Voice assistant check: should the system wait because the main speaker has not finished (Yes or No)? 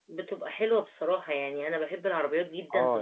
Yes